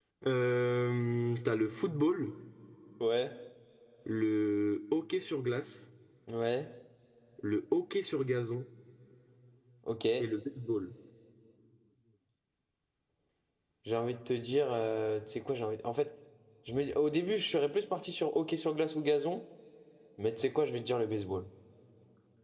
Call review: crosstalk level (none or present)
none